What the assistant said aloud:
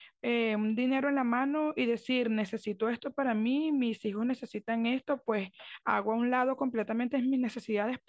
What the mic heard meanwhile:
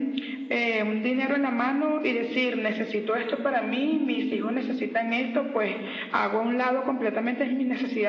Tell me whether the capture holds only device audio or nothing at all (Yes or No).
Yes